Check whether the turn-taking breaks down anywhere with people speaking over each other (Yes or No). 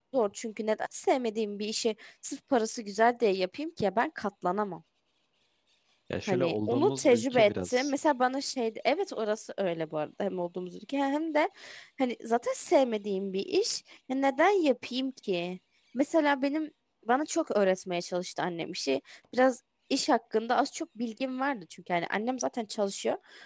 Yes